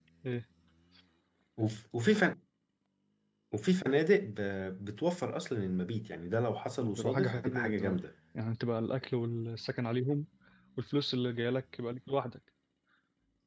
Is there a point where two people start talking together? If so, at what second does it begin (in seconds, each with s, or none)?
6.8 s